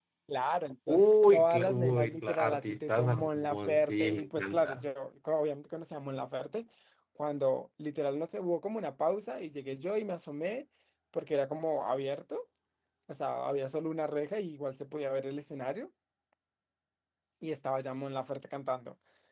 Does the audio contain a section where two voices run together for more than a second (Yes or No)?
Yes